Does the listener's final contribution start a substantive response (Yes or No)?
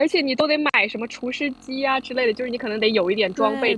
Yes